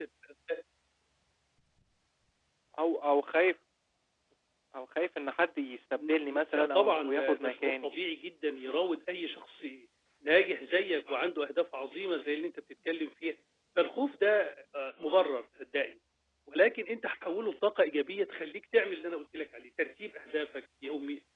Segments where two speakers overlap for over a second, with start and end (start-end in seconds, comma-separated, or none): 6.0-7.9